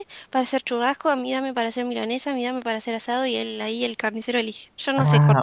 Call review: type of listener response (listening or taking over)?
taking over